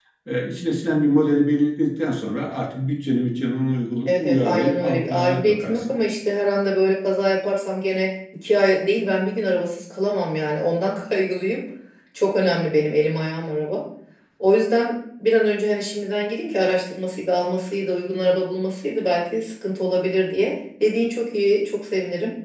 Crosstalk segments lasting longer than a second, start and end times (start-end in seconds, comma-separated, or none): 4.1-5.9